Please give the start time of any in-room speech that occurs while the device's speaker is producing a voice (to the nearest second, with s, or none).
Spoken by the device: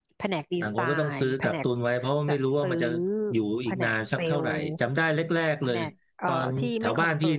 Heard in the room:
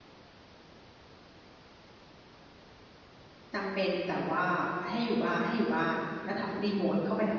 4 s